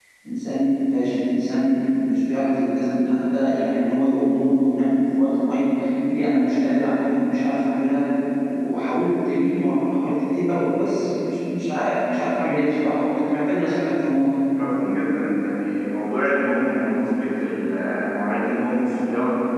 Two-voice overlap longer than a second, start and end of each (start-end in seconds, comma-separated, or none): none